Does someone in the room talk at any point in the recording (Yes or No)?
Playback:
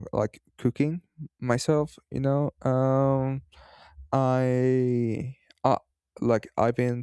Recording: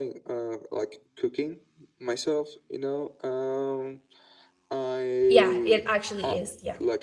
Yes